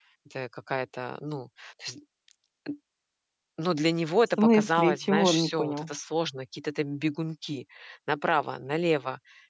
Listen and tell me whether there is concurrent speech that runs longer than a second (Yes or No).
Yes